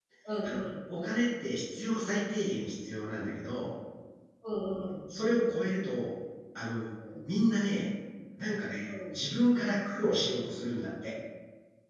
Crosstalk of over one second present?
No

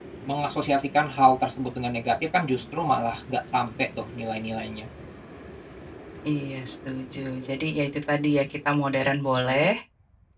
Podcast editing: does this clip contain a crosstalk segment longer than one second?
No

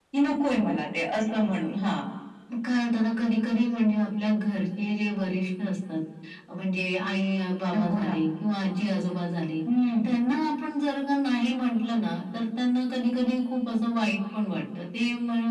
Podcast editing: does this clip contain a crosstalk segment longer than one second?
No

